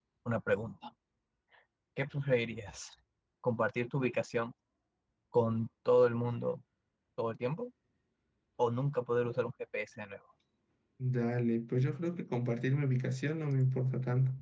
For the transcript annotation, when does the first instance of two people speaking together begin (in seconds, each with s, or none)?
none